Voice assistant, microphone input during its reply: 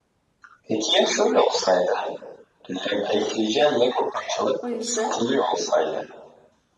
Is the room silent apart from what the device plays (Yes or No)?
No